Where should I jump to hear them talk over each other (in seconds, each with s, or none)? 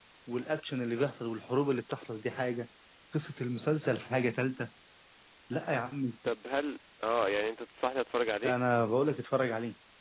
none